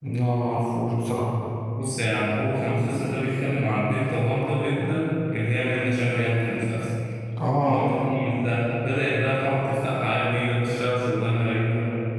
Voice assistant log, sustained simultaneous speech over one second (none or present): none